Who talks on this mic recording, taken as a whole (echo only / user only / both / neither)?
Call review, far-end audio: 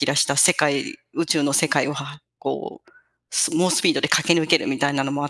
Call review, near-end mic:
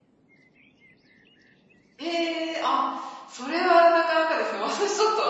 user only